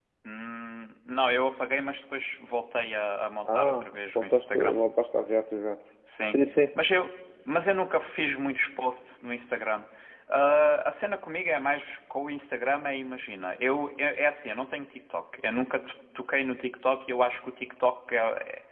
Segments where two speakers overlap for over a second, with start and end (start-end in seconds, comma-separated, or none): 3.5-4.8